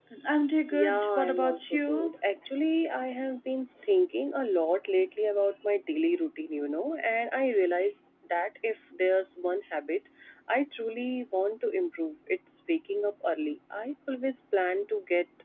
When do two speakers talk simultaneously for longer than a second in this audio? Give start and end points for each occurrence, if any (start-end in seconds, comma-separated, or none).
0.7-2.1